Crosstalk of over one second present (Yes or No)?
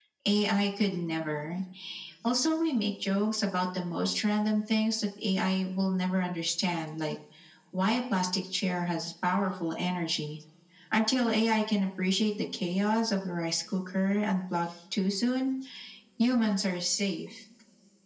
No